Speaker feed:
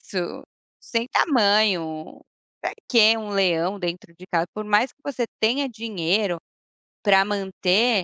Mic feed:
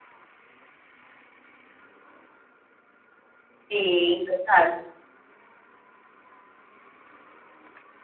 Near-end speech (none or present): present